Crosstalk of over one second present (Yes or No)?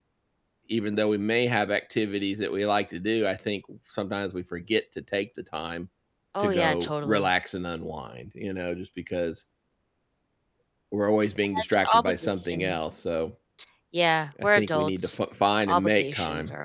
Yes